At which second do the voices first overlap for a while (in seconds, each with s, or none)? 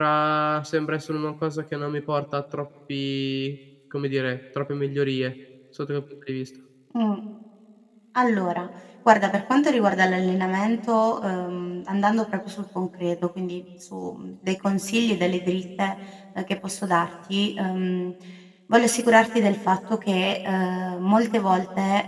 none